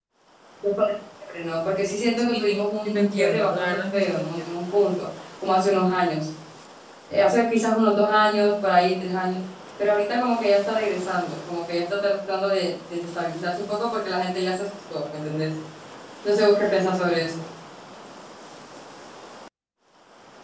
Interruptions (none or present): present